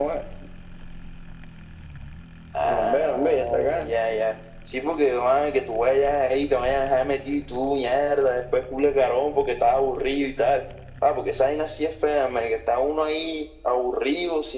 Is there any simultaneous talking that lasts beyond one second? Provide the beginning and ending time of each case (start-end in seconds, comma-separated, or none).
2.6-4.0